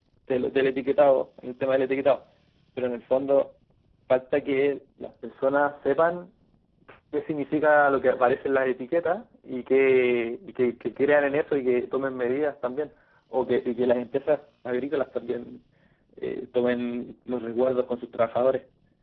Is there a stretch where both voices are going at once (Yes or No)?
No